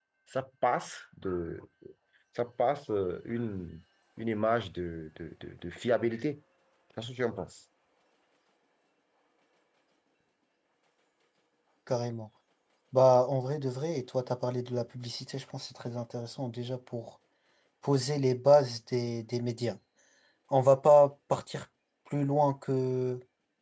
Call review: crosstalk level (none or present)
none